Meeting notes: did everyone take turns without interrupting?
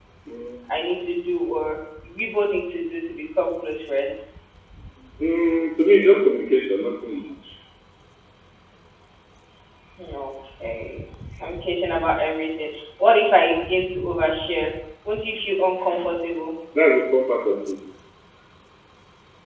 Yes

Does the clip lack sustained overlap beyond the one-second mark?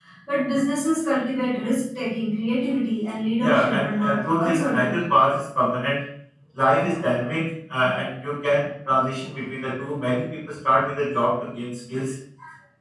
No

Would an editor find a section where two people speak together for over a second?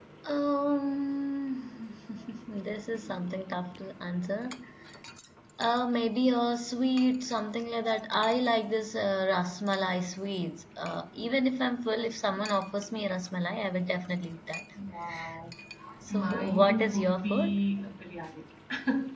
Yes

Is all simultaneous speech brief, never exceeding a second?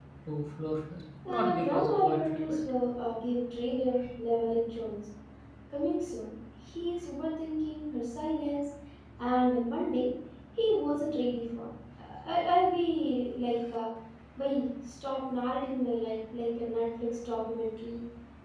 No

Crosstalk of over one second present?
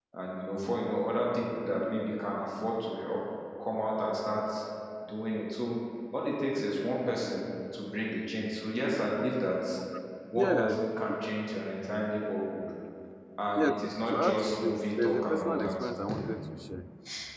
Yes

